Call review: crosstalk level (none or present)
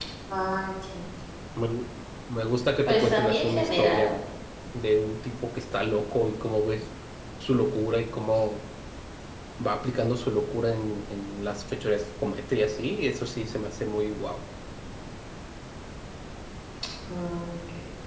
present